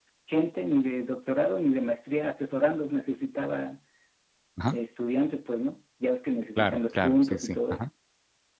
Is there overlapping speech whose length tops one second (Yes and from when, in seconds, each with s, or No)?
Yes, from 6.6 s